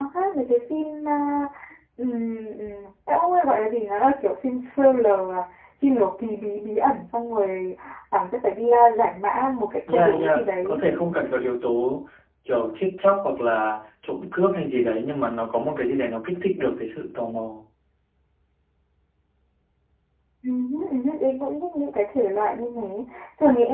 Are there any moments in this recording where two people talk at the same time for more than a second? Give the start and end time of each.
9.9-11.1

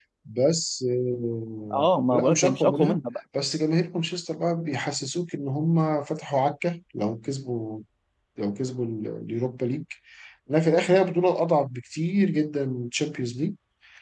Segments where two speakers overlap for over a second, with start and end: 1.7-3.0

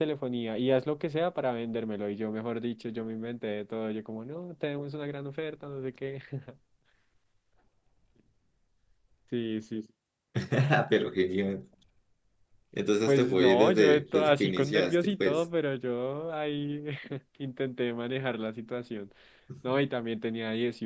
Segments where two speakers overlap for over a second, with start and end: 13.1-15.4

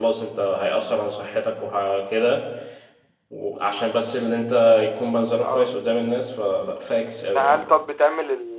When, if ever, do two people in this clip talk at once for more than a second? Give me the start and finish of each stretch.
none

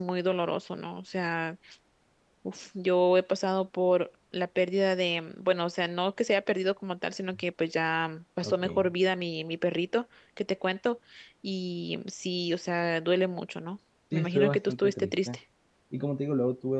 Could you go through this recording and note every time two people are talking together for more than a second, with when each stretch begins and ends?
14.1-15.4

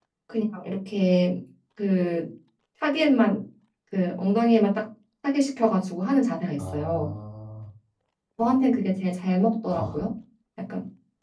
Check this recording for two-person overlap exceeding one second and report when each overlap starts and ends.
none

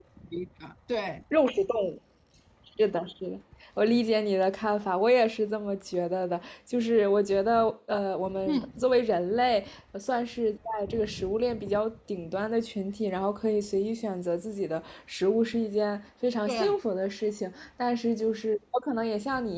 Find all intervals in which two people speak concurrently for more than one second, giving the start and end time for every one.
none

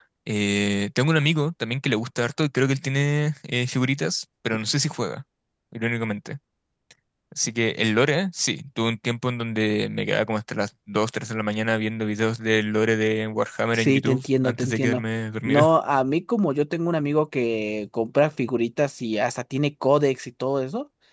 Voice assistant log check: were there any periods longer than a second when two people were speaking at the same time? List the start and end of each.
13.7-15.0

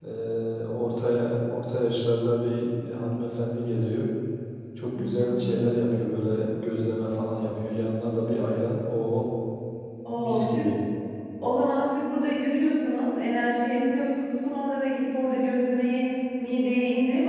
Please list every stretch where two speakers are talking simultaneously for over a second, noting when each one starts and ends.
none

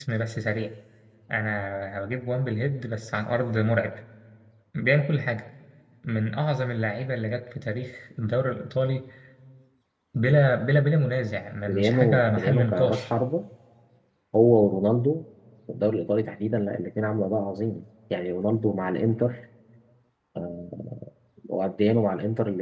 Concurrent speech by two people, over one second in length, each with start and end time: 11.7-13.0

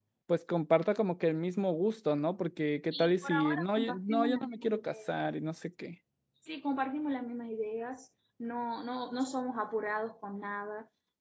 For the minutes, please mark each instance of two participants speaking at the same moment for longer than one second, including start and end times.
2.9-4.9

